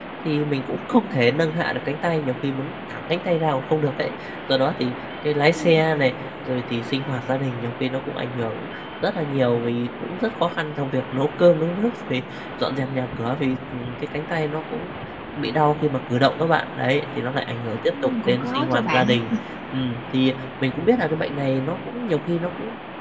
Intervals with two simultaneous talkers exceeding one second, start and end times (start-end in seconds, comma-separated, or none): 18.0-19.3